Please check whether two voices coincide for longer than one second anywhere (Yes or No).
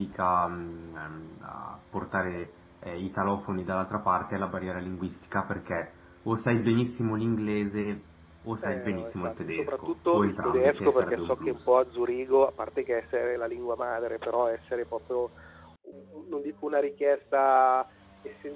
Yes